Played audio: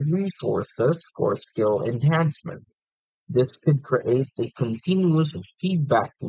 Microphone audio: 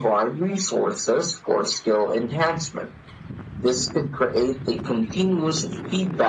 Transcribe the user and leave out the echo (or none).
none